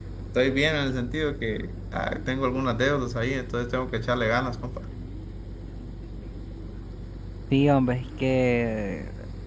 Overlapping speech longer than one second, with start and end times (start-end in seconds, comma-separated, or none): none